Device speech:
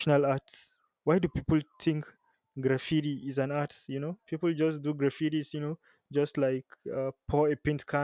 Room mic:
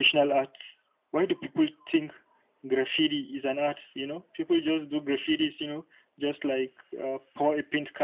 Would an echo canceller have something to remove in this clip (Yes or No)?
Yes